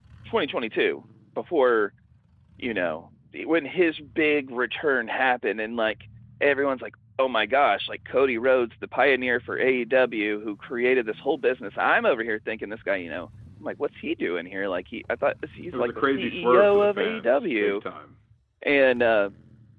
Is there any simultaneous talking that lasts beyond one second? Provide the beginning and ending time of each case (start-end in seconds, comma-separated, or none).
15.7-17.8